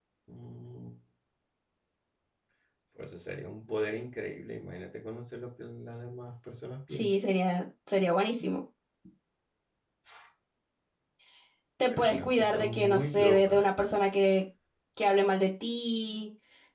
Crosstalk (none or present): present